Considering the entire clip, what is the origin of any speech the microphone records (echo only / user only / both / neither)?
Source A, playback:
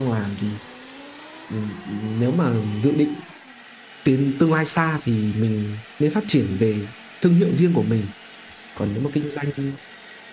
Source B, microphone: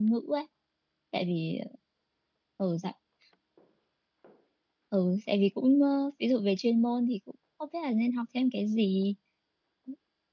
user only